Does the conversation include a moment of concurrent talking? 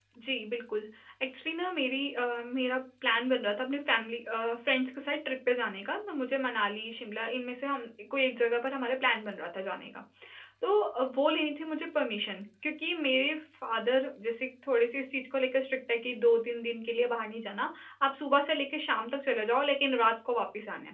No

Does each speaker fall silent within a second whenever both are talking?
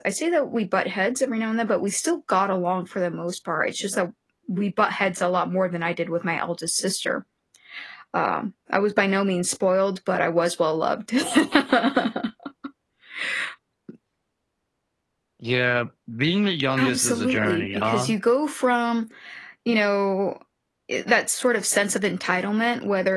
No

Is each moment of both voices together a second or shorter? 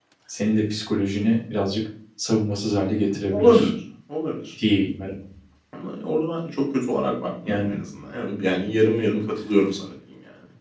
Yes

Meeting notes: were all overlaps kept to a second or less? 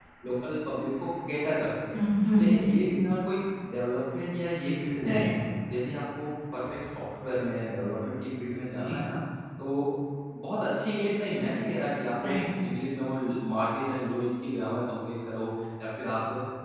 Yes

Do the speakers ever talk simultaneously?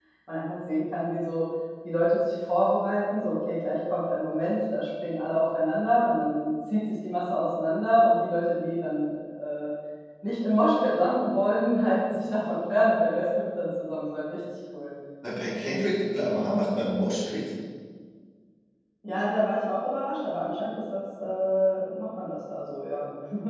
No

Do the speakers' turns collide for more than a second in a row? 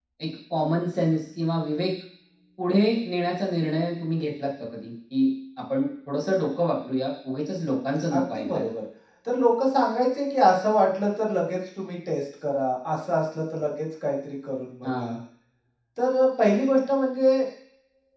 No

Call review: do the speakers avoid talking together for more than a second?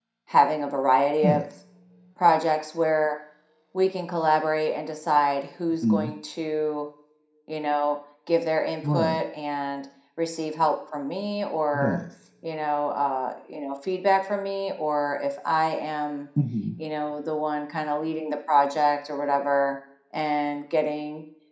Yes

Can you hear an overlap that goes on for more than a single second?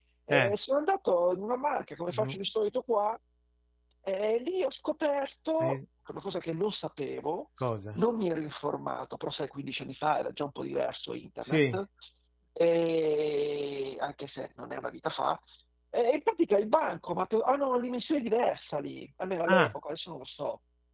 No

